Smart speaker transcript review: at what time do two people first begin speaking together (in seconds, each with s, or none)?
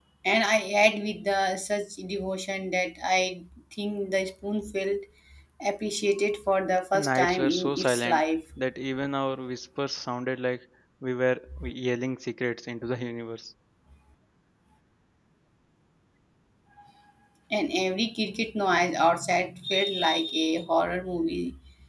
6.9 s